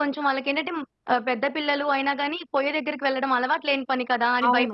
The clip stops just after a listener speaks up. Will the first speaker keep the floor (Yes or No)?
No